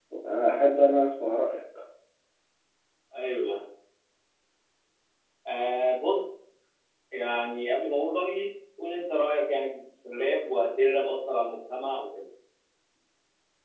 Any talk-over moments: No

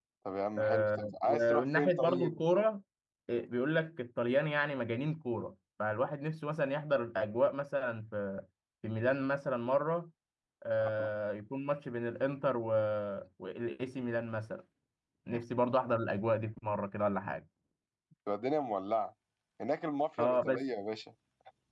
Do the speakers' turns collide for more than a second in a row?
Yes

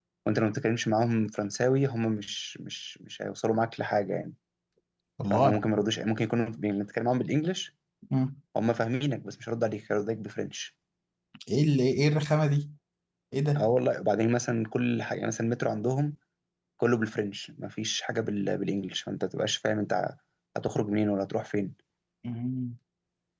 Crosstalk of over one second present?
No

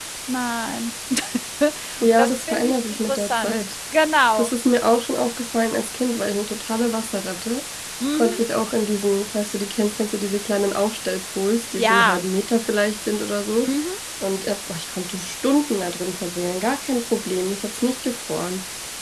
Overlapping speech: Yes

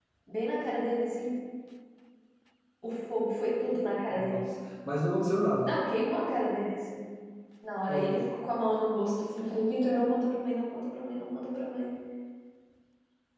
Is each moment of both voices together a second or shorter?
Yes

